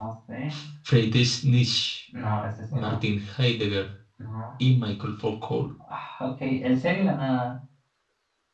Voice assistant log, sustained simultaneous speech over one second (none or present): none